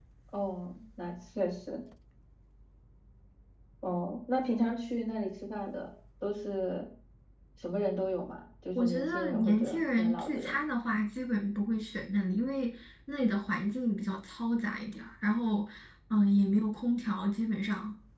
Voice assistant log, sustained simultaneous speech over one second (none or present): present